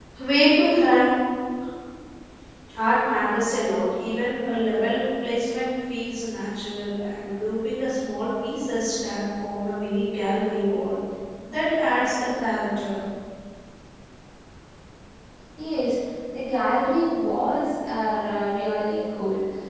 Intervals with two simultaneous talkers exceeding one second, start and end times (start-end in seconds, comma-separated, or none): none